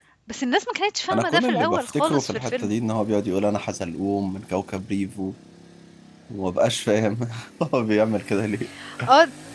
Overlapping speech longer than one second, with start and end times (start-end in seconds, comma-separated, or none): 1.1-2.7